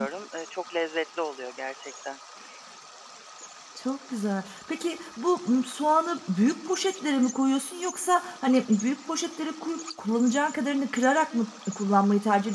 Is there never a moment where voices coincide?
Yes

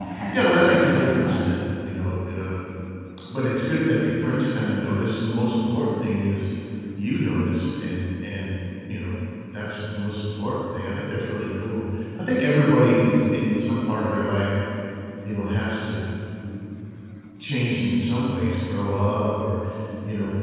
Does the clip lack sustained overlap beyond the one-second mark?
No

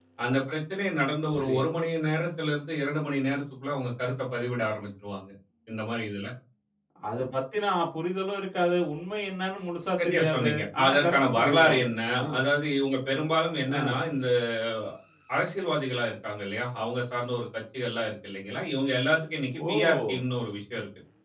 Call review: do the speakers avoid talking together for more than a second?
No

